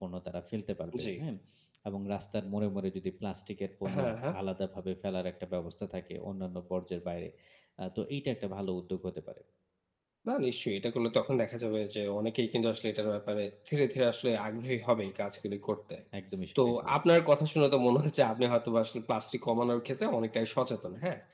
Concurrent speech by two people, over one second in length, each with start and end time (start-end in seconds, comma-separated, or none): none